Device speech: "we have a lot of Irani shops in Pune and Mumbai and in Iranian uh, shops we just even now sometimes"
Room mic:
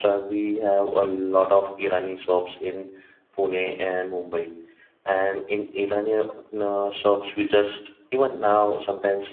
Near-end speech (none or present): none